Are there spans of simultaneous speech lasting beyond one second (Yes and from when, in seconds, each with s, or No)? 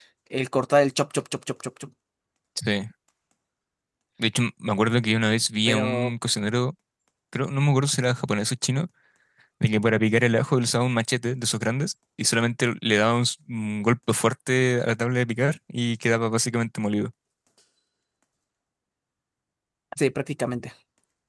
No